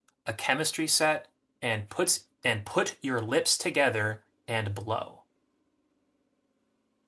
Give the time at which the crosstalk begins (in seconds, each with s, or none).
none